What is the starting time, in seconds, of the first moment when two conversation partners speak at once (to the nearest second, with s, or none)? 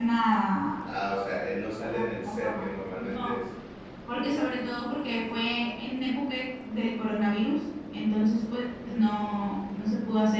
2 s